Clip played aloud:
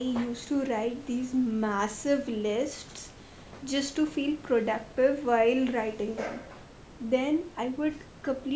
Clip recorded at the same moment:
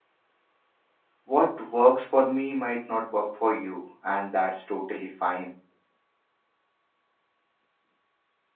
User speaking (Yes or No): Yes